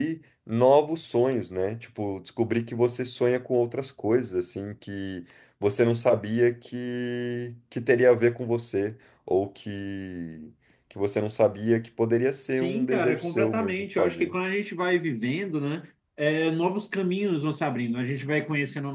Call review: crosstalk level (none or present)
present